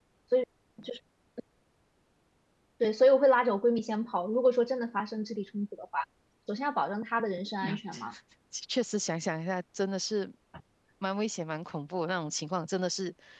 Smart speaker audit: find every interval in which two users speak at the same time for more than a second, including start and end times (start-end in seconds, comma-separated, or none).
none